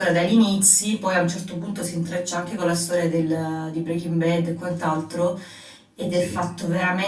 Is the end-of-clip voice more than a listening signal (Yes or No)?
No